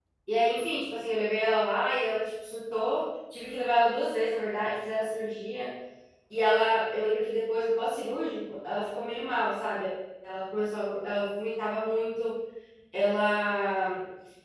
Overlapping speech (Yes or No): No